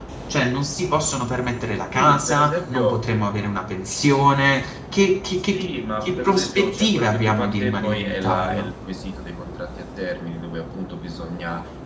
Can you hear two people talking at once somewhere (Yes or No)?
Yes